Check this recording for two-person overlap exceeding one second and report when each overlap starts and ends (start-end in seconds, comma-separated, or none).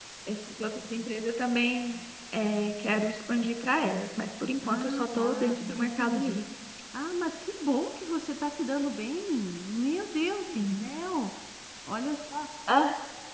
4.7-6.4